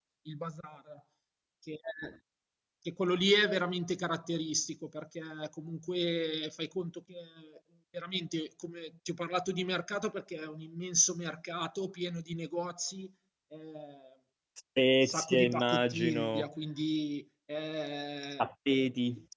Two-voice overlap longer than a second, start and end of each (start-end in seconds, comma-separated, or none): 15.0-16.5